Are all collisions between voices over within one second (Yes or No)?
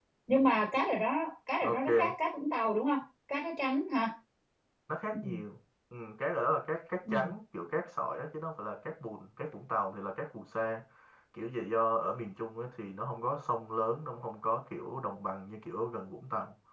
Yes